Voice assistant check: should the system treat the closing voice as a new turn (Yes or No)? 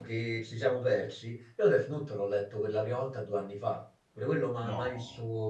No